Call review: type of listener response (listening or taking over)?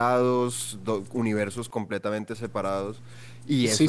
taking over